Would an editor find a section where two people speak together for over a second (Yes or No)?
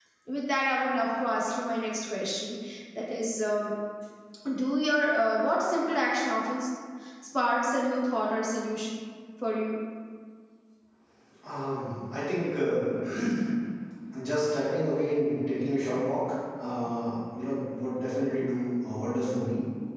No